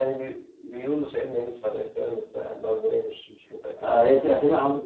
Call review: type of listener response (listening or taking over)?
taking over